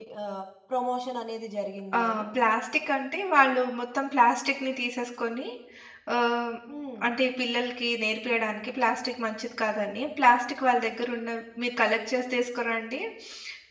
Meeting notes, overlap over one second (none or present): none